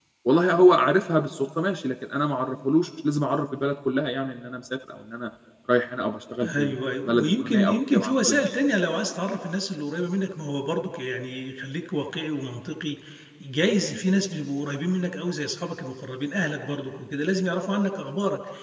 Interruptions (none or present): present